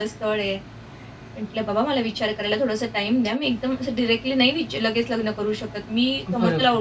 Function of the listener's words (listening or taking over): listening